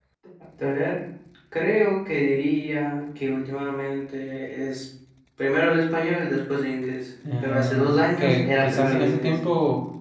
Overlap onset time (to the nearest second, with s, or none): 7 s